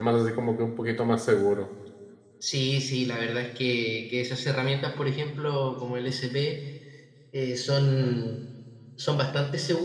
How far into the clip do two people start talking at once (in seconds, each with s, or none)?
none